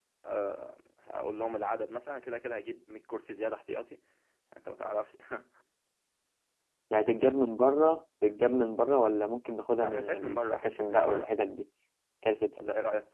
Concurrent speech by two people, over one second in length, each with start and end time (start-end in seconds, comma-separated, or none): 9.8-11.4